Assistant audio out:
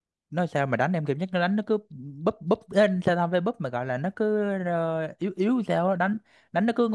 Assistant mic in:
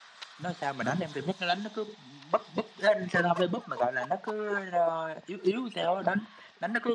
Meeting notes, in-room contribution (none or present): none